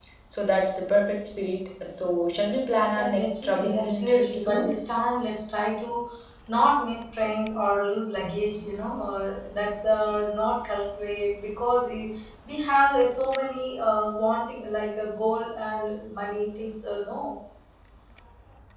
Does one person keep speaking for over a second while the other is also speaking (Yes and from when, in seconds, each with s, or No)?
Yes, from 3.0 s